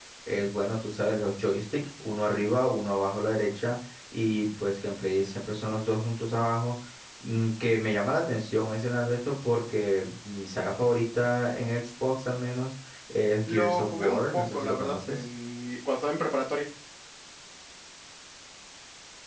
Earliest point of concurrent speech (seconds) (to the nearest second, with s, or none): 13 s